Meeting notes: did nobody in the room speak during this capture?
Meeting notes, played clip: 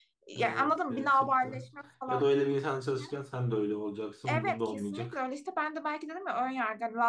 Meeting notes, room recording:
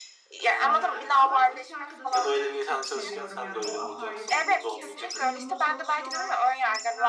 No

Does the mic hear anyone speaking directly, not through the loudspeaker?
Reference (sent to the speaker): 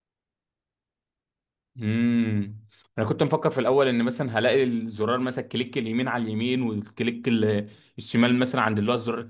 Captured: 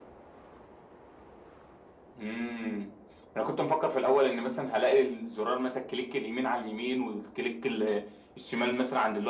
No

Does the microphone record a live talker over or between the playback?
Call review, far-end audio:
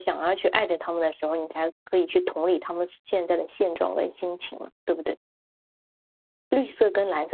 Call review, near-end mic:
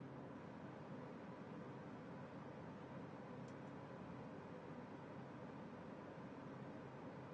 No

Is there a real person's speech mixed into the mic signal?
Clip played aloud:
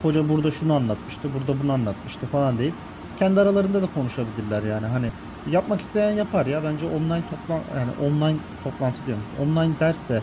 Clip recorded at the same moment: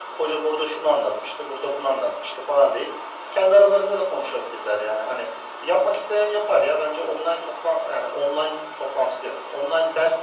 No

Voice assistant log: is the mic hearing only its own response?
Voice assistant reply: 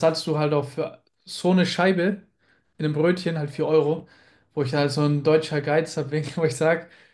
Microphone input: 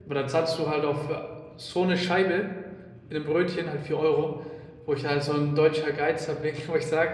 Yes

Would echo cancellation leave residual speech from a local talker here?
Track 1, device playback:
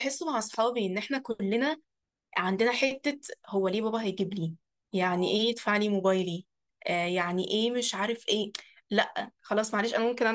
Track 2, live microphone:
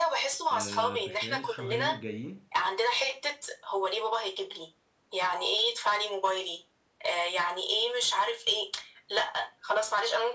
Yes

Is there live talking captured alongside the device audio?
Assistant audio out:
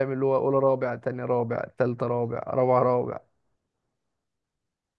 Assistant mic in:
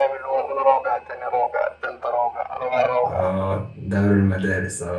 Yes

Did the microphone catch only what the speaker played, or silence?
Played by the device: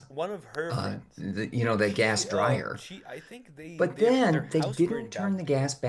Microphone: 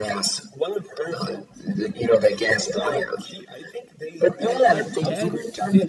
No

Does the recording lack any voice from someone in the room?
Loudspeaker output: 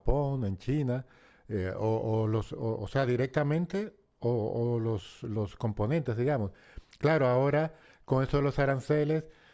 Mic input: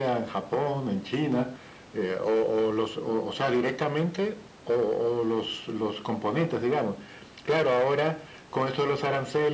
Yes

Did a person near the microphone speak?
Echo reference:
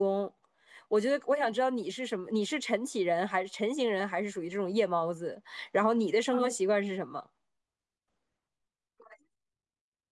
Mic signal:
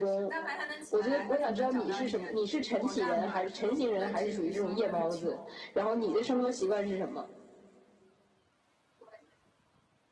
Yes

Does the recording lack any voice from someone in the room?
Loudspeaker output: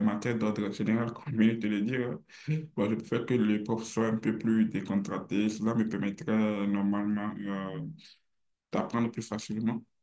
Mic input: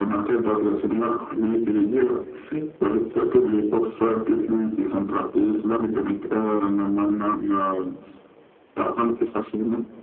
Yes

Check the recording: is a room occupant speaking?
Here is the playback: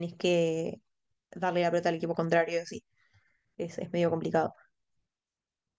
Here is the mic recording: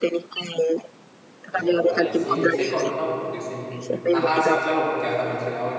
Yes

